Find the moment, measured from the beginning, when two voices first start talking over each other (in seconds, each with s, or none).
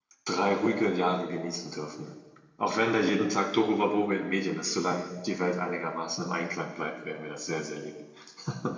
none